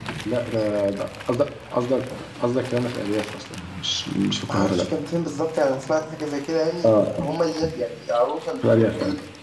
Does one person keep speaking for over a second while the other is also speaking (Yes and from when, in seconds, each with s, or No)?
No